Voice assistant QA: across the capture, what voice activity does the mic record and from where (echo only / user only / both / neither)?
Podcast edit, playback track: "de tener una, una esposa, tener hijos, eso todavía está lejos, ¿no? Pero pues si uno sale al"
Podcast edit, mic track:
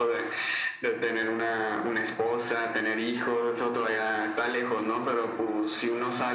echo only